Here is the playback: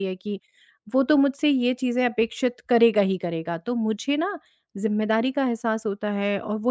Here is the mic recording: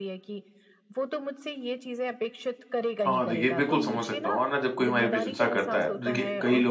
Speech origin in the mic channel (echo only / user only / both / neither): both